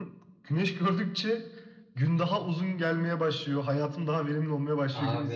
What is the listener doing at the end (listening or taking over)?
taking over